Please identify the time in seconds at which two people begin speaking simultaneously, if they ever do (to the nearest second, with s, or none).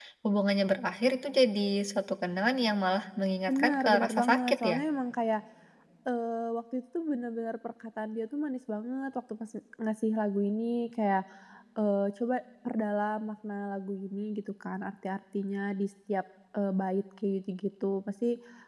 3 s